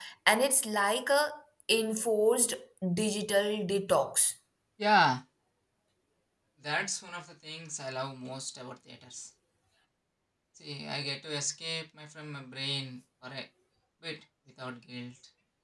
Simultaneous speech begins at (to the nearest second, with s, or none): none